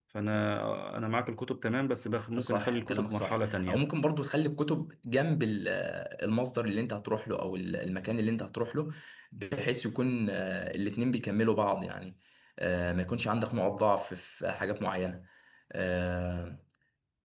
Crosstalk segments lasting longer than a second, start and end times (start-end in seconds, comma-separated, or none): 2.4-3.8